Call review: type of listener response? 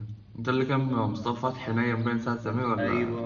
taking over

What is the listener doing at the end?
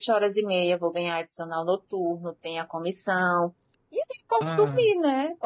listening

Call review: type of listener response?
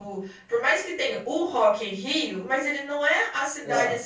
listening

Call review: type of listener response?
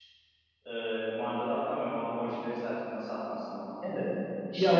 taking over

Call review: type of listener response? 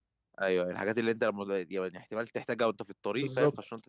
taking over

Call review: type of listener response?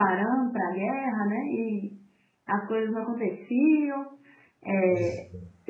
listening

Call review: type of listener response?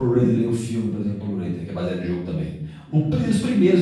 listening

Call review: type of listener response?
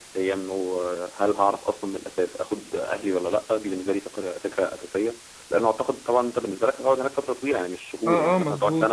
taking over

